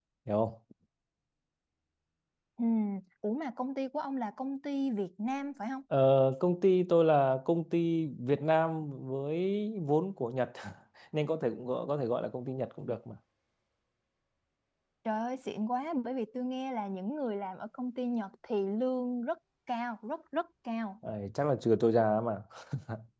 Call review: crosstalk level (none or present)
none